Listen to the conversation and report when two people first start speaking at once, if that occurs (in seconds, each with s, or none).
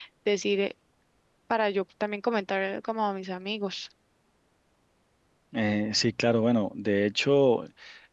none